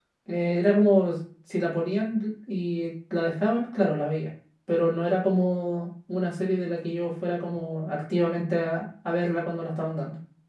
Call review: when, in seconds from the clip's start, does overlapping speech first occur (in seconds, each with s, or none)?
none